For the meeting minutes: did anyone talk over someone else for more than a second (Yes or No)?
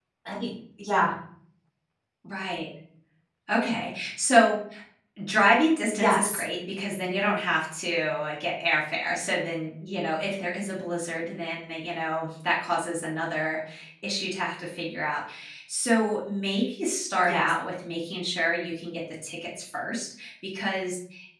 No